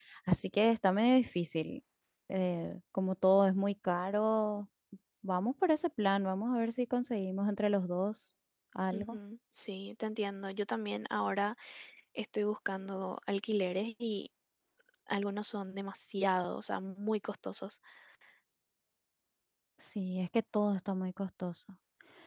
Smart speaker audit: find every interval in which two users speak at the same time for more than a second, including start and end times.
none

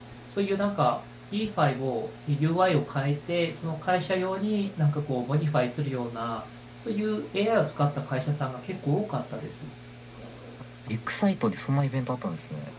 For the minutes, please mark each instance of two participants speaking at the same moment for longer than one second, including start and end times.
none

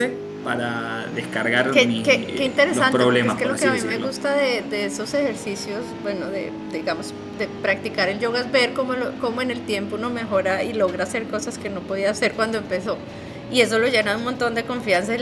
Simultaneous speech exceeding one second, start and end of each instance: 1.7-4.1

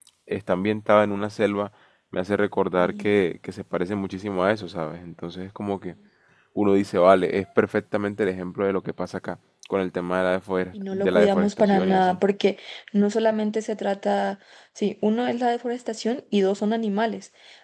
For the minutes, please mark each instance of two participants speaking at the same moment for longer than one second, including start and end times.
10.9-12.2

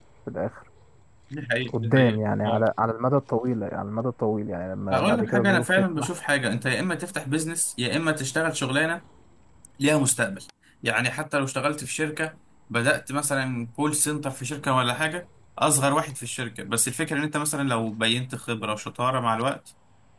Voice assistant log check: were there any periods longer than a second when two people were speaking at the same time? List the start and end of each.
4.9-6.1

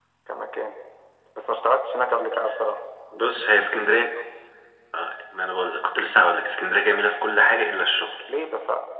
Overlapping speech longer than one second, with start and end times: none

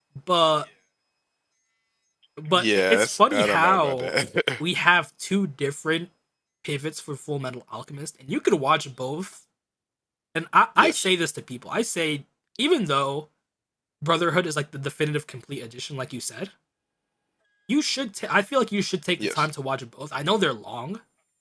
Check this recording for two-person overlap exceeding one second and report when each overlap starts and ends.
2.5-4.1

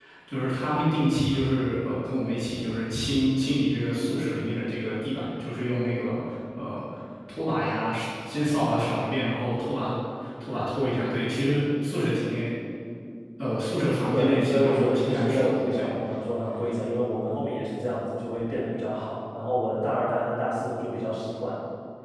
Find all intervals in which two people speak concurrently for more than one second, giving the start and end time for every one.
14.1-15.9

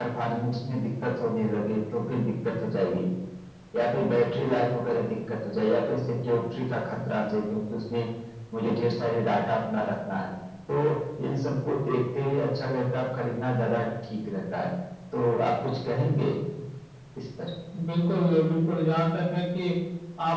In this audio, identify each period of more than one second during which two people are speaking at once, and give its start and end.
none

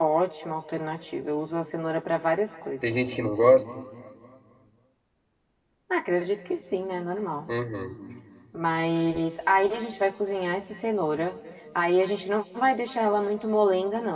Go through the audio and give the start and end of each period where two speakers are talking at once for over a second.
none

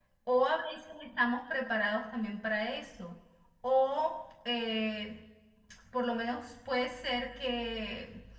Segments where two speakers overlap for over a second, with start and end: none

